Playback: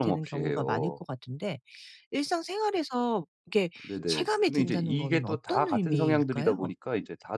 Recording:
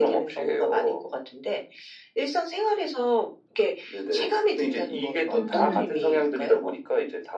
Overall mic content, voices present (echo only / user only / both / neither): both